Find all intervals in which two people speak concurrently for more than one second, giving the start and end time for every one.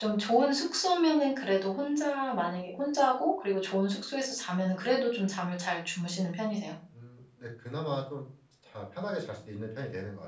none

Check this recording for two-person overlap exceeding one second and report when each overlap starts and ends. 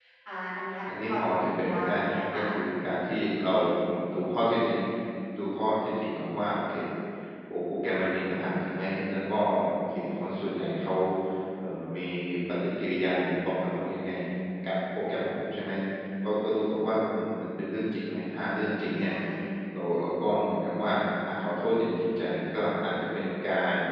1.1-2.4

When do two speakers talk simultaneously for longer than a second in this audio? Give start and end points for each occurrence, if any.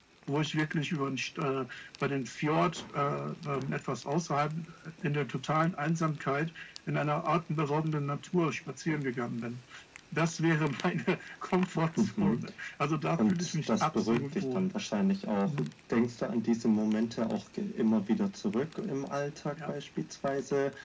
13.3-14.7

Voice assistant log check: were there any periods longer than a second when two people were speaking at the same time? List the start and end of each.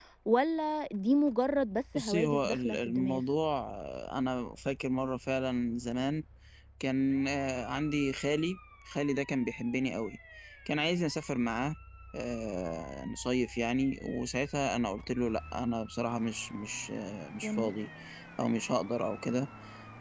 2.0-3.2

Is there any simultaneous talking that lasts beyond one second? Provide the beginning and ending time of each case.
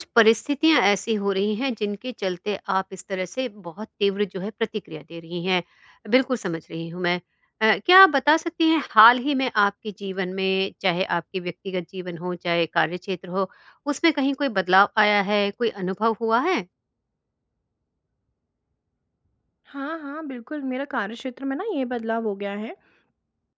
none

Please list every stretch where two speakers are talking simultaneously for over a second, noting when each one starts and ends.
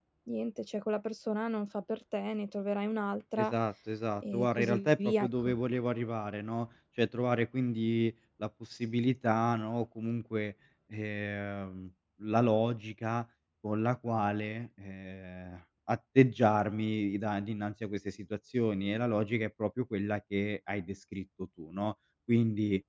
4.3-5.5

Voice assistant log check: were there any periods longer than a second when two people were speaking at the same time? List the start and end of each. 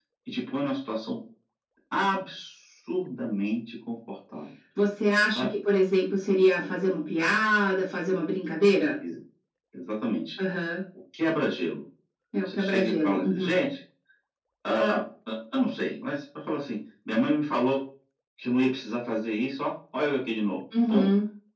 12.4-13.6

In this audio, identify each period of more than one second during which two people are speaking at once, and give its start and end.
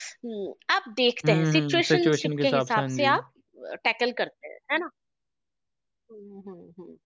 1.2-3.1

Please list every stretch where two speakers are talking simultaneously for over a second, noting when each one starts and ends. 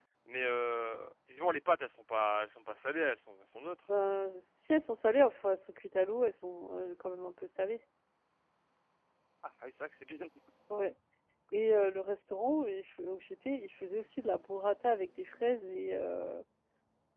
none

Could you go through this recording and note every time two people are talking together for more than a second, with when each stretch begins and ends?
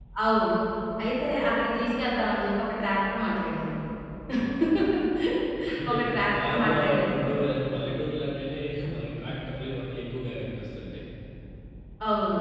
5.9-7.1

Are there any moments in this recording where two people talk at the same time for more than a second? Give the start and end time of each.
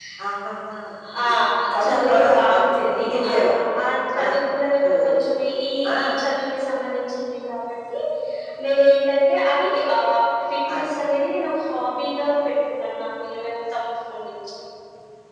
1.8-3.6

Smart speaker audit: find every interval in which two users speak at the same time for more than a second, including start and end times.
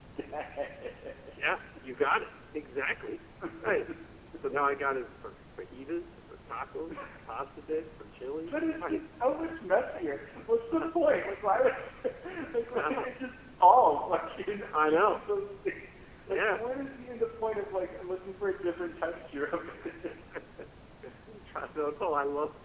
none

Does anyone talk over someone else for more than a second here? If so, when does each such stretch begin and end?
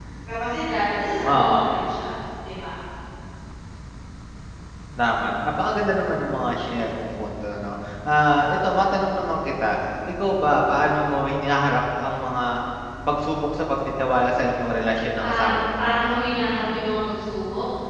none

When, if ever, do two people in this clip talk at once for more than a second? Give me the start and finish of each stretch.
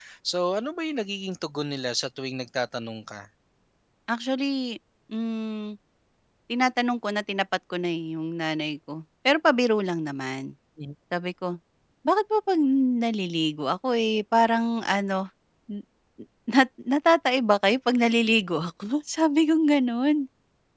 none

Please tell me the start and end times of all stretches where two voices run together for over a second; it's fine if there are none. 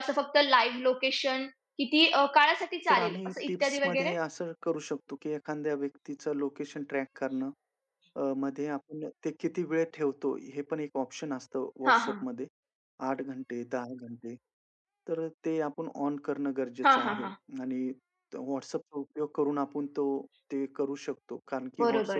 2.9-4.1

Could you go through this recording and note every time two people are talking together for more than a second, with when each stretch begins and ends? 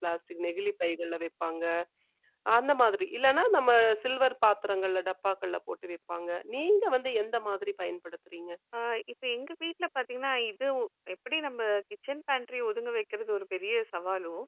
none

